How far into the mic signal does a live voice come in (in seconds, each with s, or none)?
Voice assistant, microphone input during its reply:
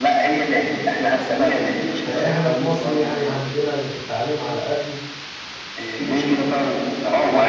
2.0 s